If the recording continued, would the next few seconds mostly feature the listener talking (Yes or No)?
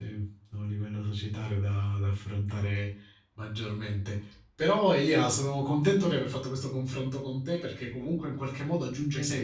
No